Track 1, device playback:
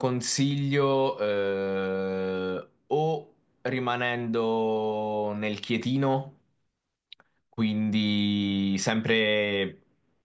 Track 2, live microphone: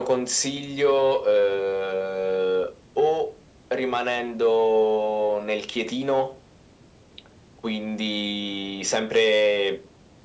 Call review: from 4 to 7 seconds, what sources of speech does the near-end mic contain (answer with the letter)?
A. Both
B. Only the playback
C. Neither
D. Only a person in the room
B